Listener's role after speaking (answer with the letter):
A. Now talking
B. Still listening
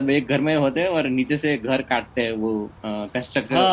A